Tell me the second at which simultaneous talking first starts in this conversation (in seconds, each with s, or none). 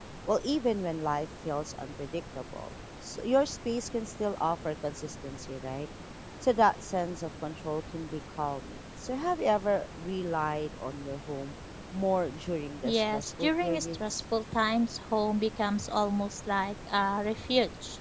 12.8 s